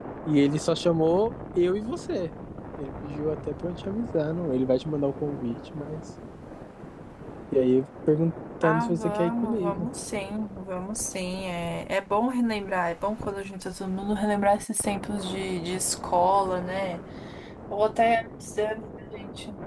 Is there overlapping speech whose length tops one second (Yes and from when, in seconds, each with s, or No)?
Yes, from 8.6 s